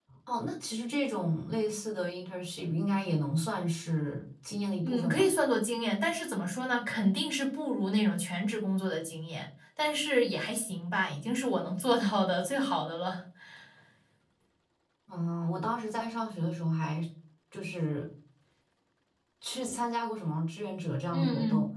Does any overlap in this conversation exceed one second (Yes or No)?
No